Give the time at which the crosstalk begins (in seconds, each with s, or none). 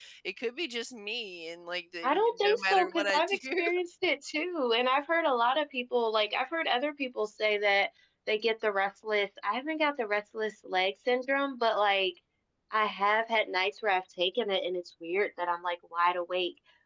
2.0 s